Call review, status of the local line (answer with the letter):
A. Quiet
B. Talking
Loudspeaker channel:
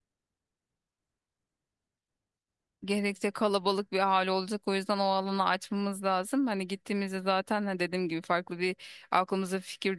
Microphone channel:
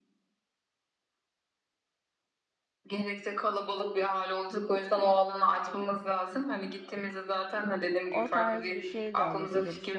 B